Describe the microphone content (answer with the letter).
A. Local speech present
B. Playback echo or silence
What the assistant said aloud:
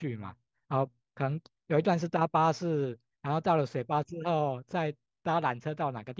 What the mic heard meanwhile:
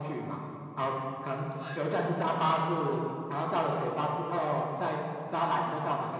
A